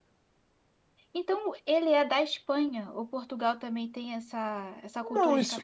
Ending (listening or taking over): taking over